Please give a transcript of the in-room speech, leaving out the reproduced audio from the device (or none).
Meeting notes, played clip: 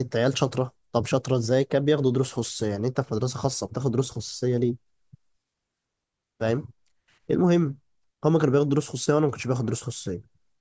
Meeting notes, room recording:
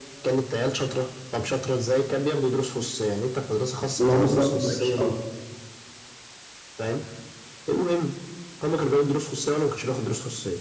اللي هو مستوى وحش اه